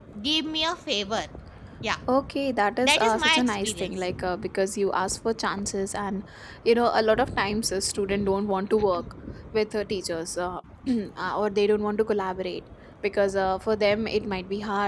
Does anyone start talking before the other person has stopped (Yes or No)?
Yes